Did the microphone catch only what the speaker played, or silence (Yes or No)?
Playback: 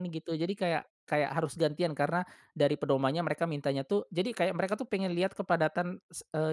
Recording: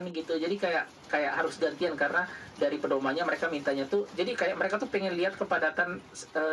Yes